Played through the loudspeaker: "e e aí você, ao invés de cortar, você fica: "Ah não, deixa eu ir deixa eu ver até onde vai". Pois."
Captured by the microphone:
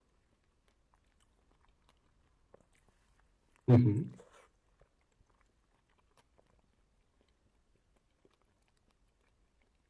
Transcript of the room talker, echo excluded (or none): Uhum.